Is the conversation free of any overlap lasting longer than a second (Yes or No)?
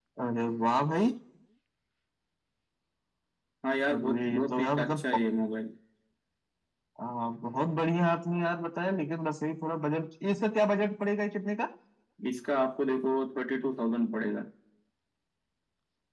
No